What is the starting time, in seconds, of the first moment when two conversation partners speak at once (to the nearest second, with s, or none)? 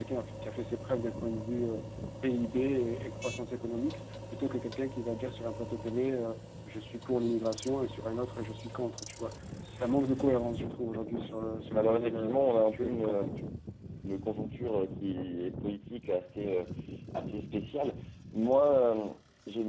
12 s